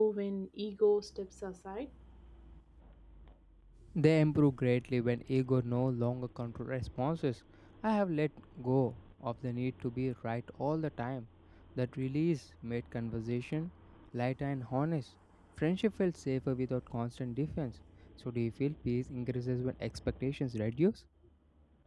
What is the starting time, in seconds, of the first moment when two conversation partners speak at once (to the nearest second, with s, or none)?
none